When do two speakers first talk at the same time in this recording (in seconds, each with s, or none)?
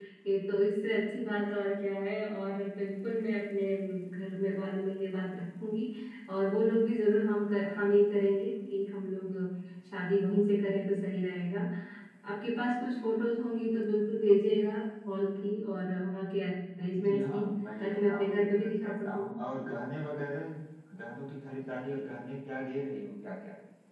16.9 s